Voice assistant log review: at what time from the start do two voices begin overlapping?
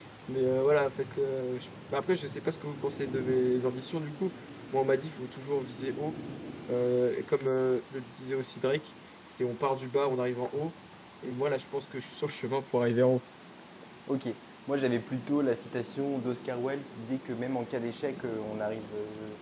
none

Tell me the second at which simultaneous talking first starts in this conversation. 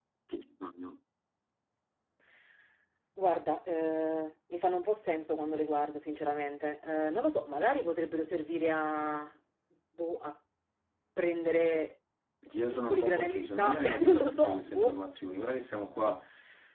12.5 s

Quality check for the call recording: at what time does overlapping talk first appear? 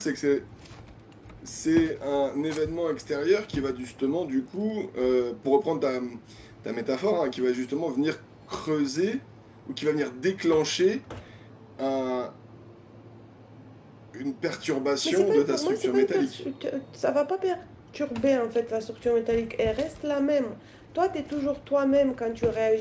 15.1 s

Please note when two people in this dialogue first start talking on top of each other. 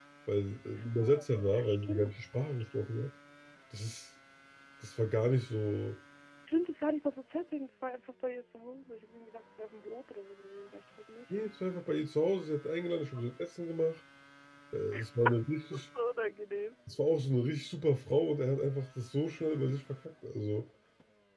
1.0 s

